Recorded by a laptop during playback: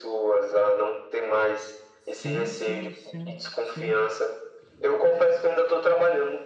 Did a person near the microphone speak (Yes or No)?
Yes